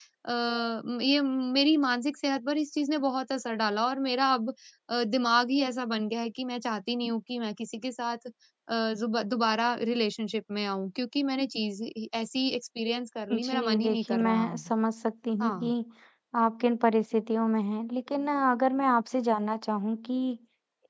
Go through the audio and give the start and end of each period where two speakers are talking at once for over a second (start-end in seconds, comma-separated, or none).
13.3-14.7